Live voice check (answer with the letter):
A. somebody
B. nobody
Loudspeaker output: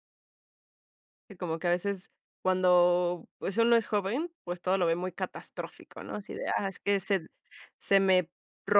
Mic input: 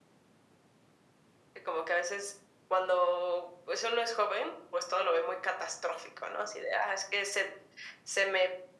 B